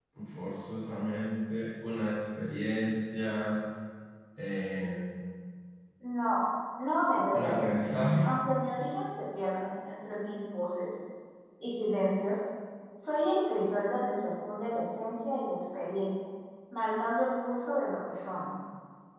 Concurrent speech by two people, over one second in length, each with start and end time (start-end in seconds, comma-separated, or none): none